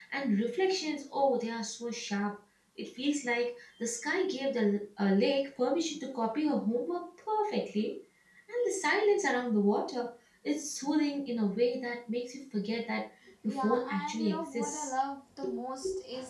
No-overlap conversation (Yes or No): No